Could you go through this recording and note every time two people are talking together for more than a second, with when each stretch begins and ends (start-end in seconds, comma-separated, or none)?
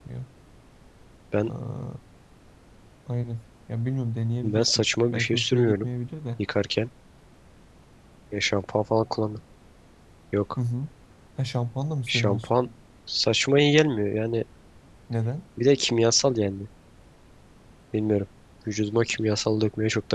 4.4-5.9